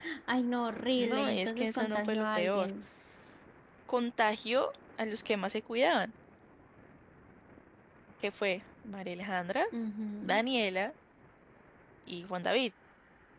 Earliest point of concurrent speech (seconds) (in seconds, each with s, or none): 1.0 s